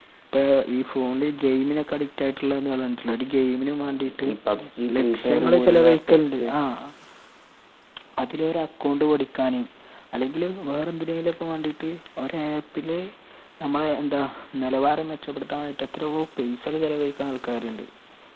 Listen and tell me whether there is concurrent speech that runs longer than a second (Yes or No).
Yes